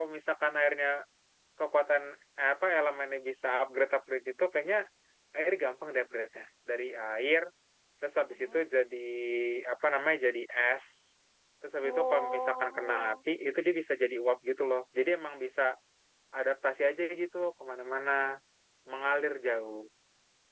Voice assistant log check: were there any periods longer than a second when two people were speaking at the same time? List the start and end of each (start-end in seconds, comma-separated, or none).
11.8-13.2